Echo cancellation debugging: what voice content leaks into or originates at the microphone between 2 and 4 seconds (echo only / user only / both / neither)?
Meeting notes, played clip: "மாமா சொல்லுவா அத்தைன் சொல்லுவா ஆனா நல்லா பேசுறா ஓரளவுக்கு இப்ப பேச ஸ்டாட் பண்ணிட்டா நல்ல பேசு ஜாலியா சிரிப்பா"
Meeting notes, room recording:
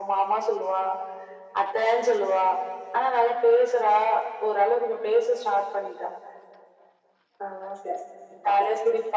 echo only